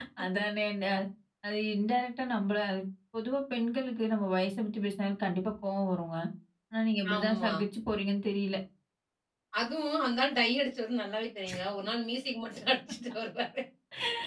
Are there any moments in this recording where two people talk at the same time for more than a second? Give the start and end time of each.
none

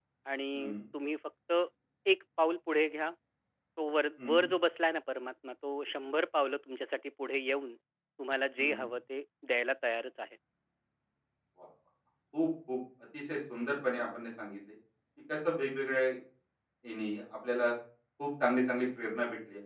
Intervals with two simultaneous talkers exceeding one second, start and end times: none

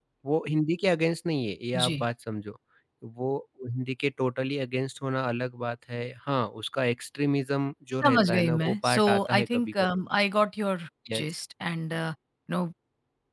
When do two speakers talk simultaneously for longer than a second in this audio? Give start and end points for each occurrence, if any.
8.0-9.7

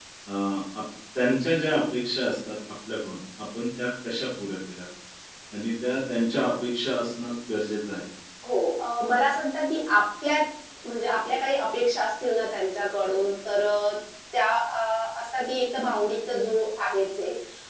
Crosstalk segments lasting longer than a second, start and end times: none

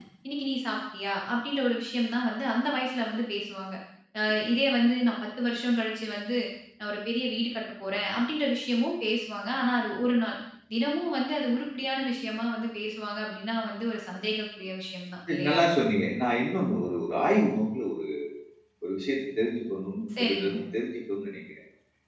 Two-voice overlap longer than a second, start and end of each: none

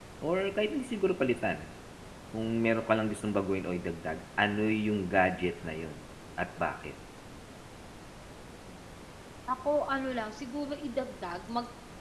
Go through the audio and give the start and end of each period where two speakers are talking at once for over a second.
none

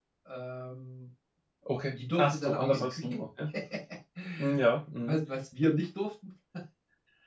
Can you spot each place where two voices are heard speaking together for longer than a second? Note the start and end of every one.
1.9-3.2

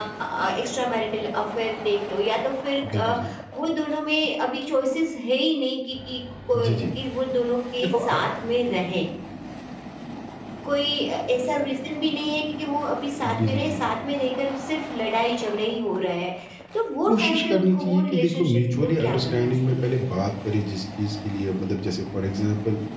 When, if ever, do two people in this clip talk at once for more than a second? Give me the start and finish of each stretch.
17.1-19.9

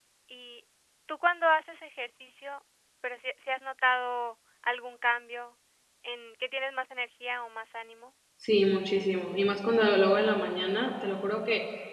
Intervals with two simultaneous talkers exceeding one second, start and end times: none

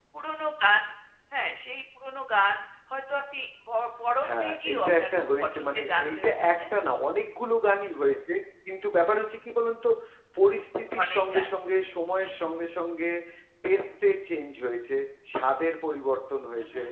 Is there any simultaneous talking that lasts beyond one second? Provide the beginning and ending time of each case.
4.2-6.6

